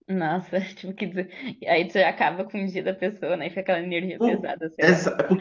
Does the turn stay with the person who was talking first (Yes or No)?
No